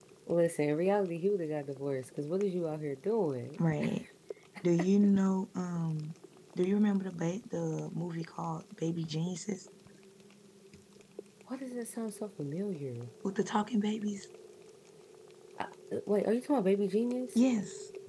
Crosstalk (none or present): none